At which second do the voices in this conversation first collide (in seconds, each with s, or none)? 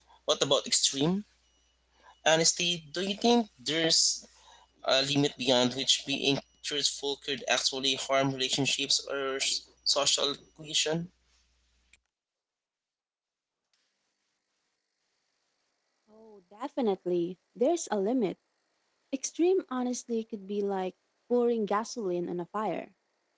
none